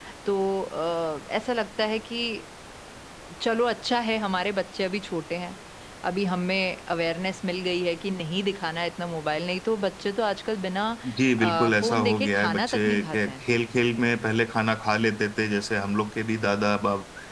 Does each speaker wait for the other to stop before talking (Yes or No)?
No